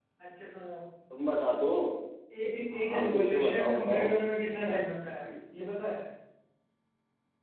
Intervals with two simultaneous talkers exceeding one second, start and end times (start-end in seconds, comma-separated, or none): 2.8-4.1